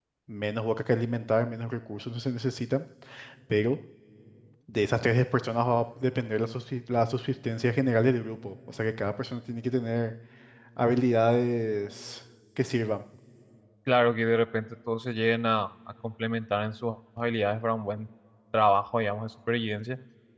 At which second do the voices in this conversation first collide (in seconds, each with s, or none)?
none